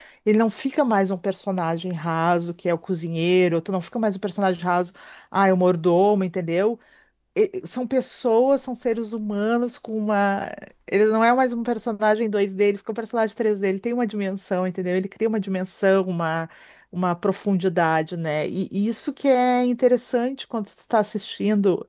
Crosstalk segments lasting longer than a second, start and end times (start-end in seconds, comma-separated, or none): none